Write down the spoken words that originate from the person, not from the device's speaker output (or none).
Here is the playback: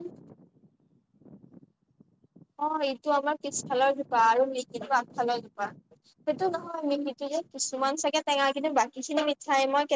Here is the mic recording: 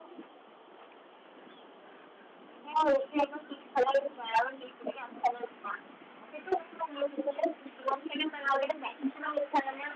none